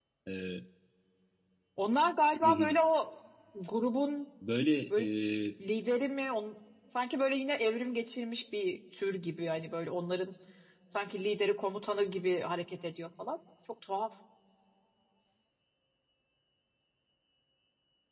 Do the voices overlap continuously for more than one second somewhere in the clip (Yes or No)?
No